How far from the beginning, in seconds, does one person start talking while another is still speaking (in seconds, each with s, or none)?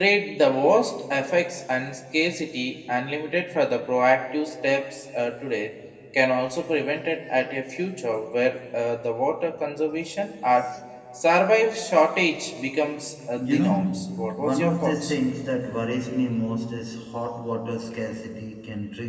13.4 s